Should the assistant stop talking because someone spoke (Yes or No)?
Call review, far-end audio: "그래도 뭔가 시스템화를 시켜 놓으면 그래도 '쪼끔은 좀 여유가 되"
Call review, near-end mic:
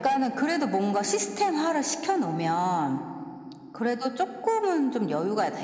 No